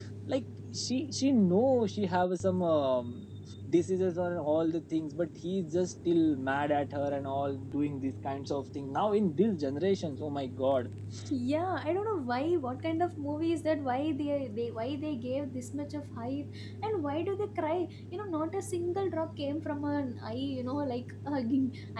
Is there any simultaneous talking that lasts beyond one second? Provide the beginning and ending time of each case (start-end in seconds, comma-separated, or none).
none